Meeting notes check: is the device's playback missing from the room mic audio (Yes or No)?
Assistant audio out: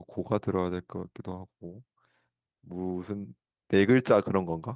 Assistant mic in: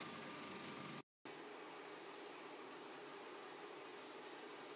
Yes